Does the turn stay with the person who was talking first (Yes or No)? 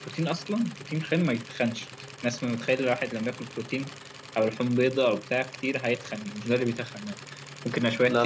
Yes